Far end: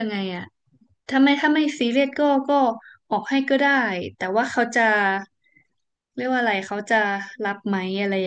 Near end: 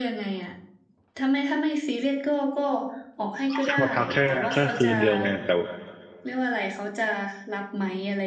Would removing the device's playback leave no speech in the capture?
No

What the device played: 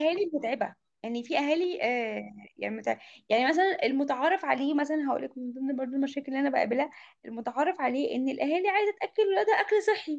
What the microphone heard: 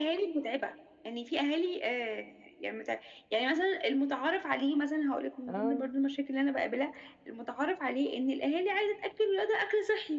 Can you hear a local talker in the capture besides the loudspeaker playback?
Yes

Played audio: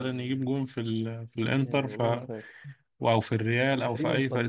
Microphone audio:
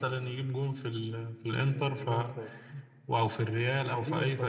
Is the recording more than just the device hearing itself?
No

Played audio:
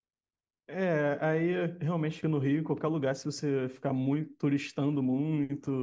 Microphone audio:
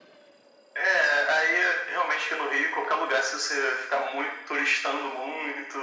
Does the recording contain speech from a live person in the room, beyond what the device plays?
No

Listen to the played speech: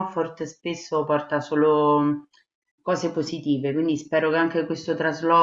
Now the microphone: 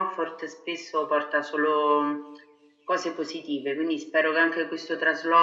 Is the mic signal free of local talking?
Yes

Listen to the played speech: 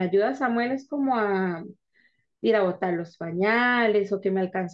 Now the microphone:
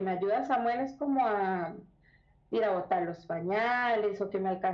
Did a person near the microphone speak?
No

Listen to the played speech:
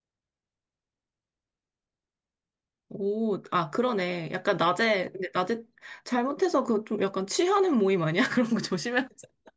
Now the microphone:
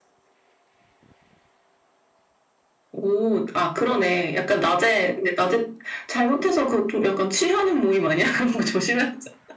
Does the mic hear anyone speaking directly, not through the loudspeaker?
No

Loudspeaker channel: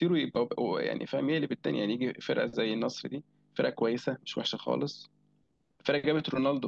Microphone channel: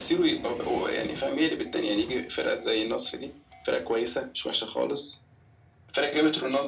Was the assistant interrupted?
No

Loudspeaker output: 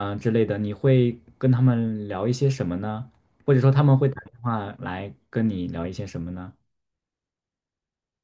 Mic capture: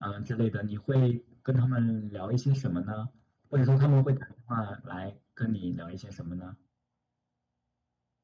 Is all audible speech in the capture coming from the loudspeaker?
Yes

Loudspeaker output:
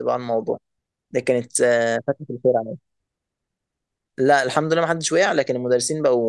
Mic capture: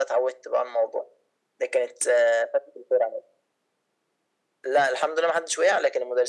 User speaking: No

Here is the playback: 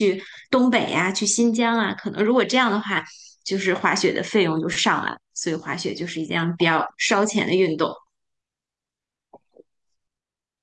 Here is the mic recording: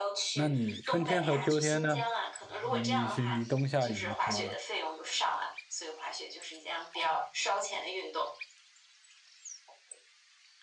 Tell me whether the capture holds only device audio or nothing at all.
No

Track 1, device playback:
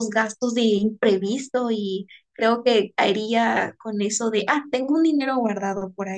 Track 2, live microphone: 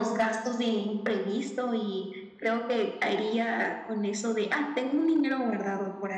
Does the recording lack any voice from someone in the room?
Yes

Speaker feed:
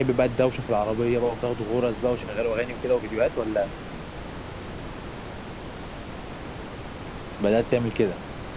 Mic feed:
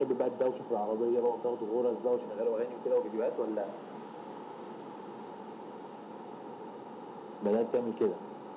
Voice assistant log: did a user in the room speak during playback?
No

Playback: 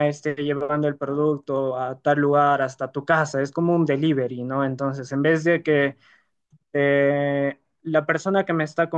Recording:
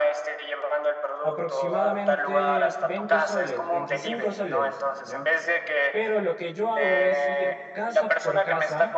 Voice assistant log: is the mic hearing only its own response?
No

